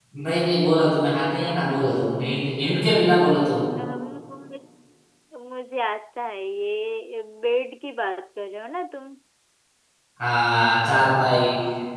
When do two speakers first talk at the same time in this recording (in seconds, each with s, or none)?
none